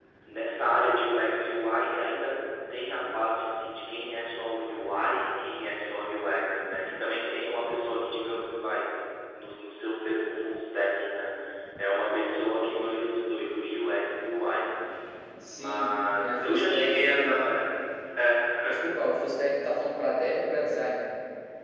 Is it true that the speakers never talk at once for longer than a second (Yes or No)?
No